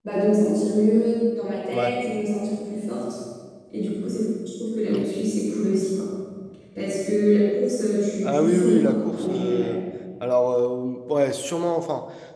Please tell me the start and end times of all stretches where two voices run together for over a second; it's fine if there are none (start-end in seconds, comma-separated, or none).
8.2-9.7